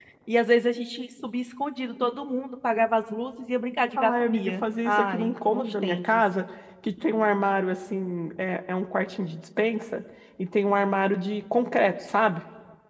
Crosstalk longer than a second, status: present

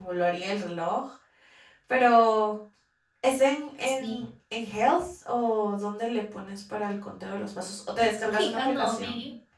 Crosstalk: present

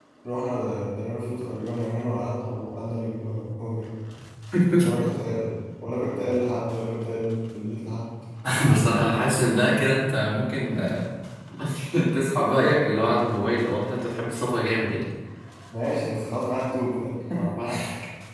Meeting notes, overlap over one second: none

